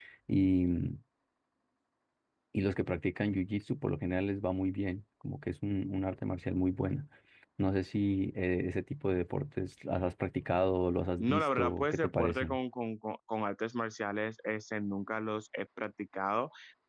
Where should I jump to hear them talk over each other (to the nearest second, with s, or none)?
11 s